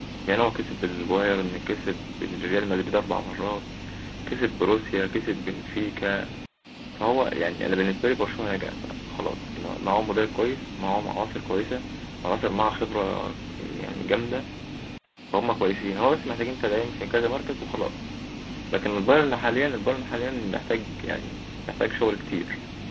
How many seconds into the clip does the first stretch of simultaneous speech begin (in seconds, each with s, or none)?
none